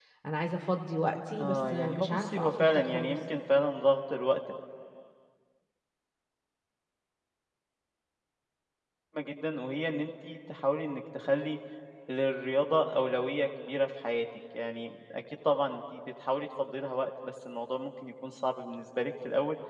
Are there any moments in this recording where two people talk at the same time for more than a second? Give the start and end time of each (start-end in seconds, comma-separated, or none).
1.3-3.2